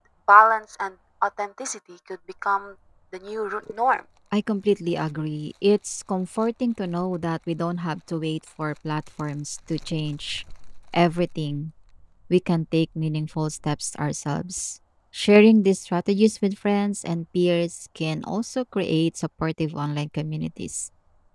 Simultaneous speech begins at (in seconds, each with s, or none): none